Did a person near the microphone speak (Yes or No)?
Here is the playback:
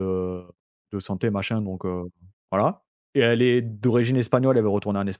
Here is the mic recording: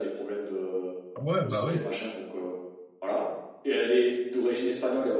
Yes